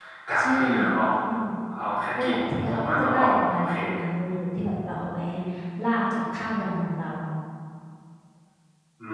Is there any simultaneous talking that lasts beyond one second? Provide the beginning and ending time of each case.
2.2-3.7

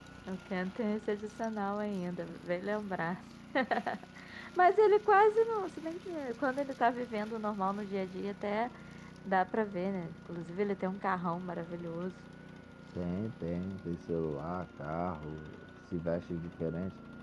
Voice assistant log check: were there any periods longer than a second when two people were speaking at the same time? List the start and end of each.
none

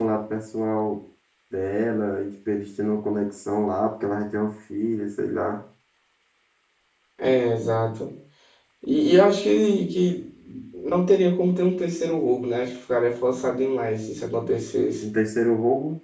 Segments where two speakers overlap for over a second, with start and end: none

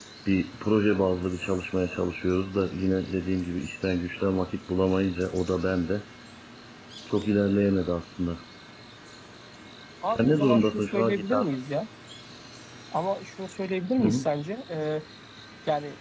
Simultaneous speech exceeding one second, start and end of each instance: 10.1-11.5

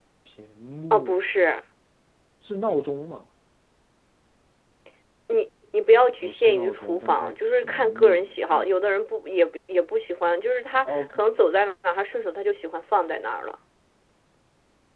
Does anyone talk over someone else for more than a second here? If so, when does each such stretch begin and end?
6.2-8.6

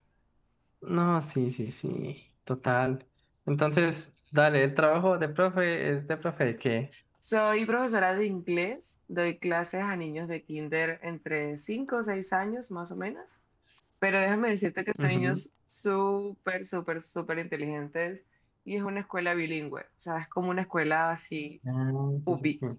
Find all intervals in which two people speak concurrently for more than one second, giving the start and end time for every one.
none

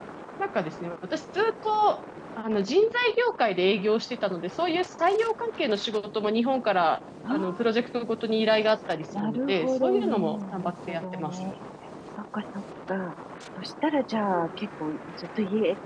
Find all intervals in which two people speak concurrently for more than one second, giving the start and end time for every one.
9.2-11.4

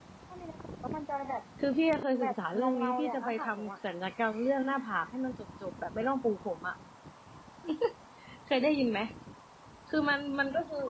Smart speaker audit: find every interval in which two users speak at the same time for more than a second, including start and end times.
2.2-3.7

